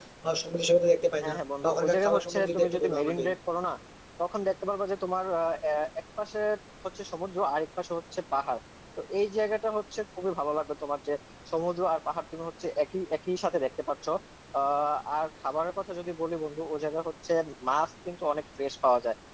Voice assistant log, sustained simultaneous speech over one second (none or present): present